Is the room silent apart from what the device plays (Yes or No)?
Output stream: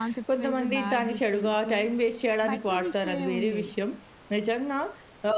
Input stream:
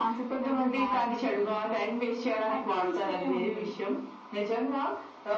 Yes